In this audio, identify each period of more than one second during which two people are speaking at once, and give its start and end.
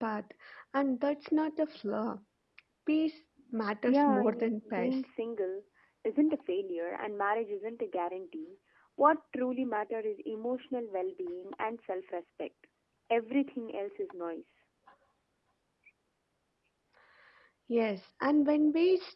3.9-5.1

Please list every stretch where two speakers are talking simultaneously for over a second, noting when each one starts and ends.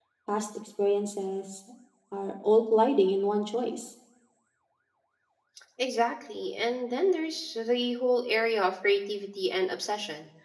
none

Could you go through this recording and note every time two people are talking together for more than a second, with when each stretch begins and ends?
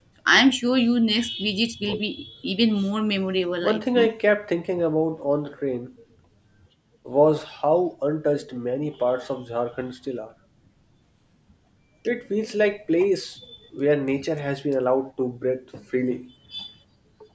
none

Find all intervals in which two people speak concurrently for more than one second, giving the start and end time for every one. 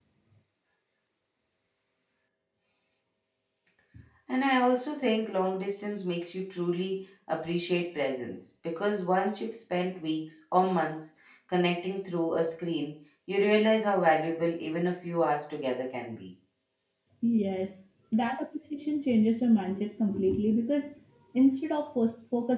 none

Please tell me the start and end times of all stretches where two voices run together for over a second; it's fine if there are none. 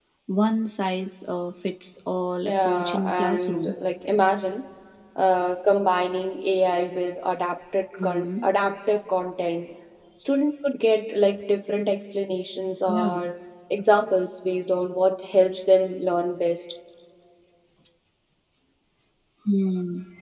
2.4-3.8

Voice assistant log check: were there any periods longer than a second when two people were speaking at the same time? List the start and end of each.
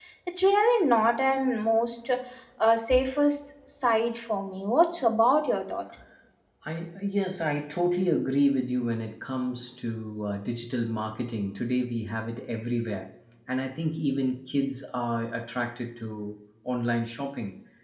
none

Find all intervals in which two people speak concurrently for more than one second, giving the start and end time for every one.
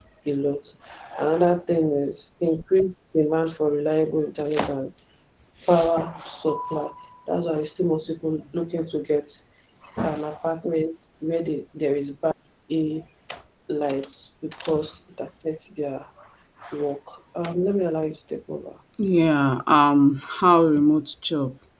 none

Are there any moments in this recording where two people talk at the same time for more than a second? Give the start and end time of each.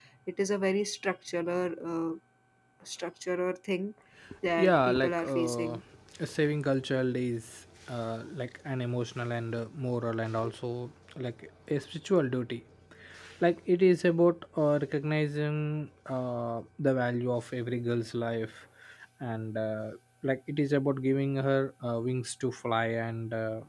4.5-5.8

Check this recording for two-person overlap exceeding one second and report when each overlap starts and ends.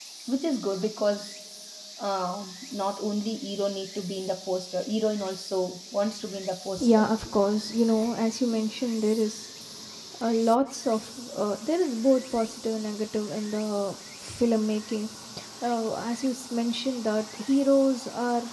none

